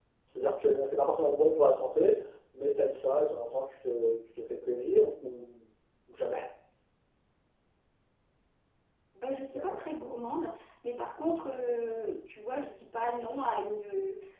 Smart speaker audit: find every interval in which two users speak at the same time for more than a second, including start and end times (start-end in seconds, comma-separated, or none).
none